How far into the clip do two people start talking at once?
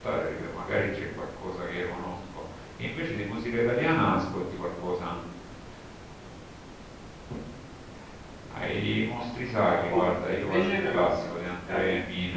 10 s

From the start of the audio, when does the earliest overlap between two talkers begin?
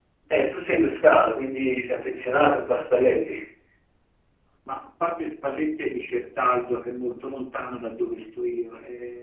none

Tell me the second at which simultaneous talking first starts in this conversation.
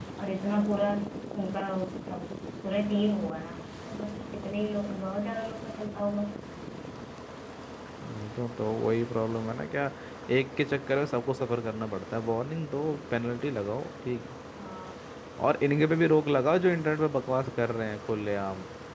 none

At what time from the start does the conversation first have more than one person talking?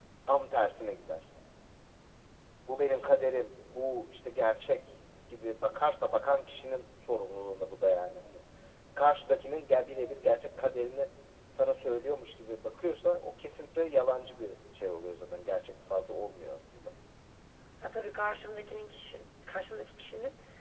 none

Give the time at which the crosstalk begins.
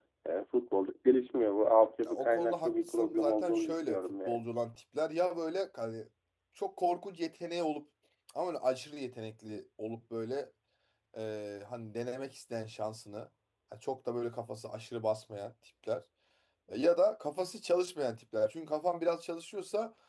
2 s

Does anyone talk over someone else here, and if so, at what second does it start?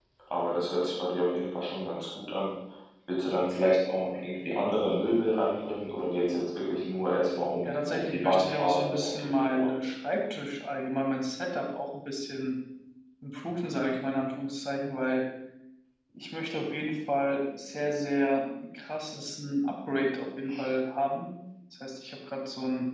8 s

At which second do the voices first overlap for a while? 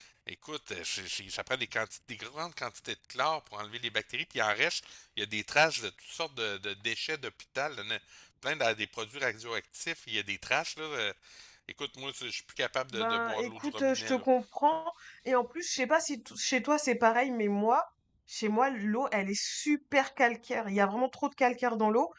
13 s

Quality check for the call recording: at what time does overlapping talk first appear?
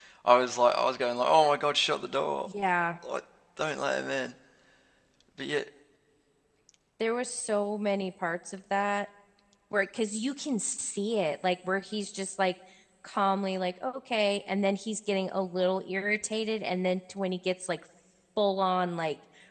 none

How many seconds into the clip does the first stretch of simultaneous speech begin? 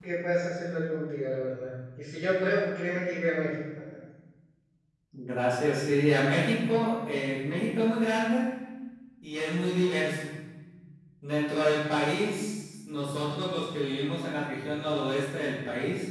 none

